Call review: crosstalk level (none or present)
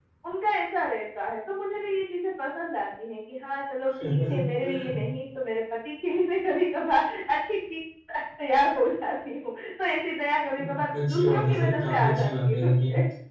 present